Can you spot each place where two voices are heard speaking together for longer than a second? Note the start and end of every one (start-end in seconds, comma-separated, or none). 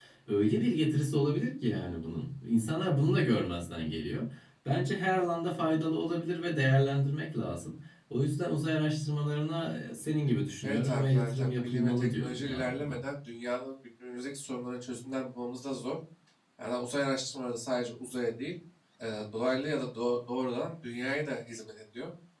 10.6-12.9